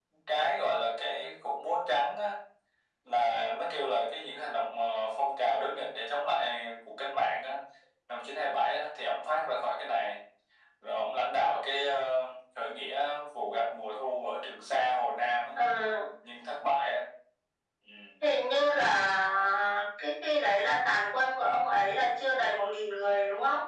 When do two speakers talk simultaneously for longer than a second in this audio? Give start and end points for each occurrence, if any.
none

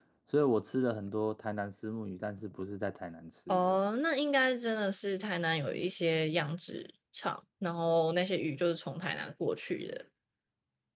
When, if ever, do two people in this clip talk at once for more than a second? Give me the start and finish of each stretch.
none

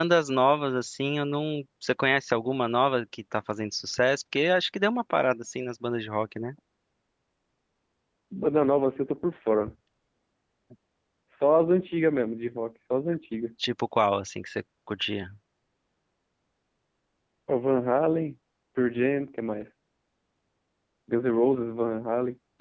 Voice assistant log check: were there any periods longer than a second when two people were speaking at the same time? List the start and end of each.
none

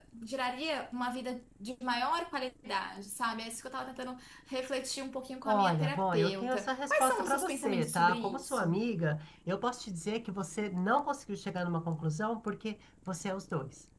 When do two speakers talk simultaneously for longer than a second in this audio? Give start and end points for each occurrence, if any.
5.5-8.8

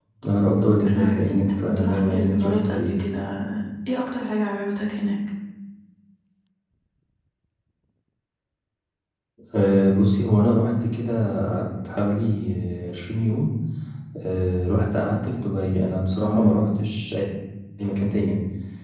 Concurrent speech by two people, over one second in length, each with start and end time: 0.9-3.1

